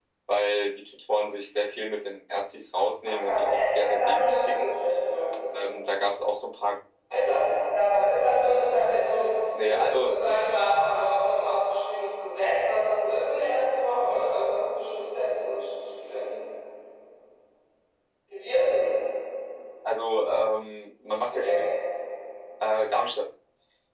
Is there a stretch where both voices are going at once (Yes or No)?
Yes